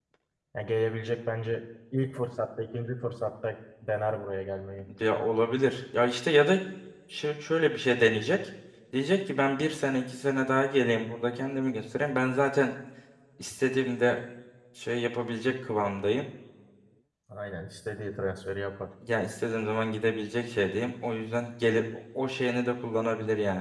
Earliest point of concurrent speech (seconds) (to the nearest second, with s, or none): none